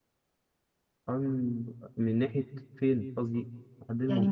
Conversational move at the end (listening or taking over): taking over